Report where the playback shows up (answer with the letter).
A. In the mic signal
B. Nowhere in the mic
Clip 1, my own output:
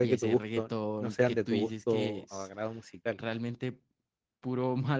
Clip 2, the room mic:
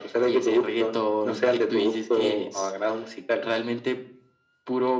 A